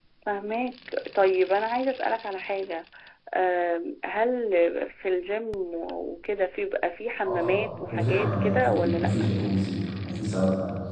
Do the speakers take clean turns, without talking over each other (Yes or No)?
No